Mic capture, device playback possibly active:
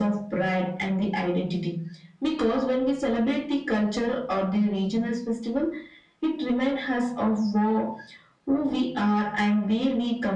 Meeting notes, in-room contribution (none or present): none